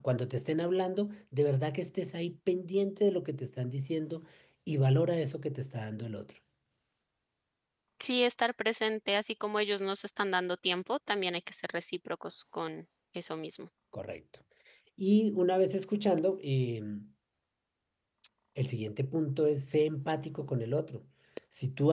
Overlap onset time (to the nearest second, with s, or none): none